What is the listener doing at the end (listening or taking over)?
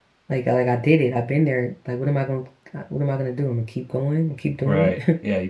taking over